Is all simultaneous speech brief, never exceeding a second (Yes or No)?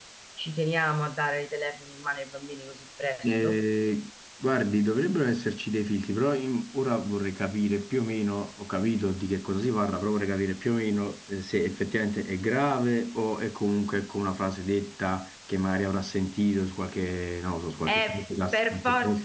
No